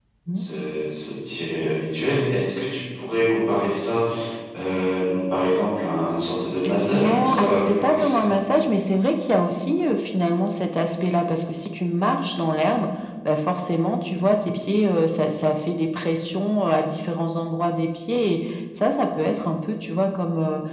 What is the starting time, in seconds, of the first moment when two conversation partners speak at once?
6.9 s

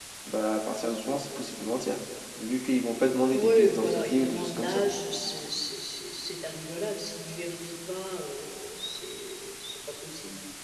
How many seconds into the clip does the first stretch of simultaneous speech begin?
3.3 s

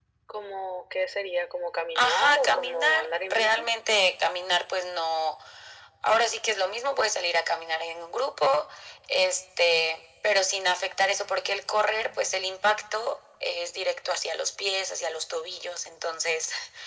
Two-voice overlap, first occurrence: 2.0 s

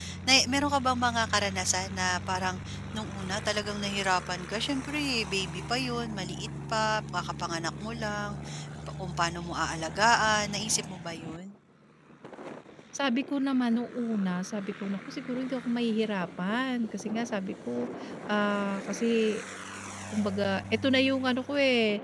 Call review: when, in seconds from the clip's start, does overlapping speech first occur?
none

